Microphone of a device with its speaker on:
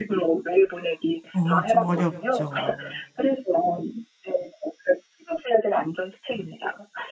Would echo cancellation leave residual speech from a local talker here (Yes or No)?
Yes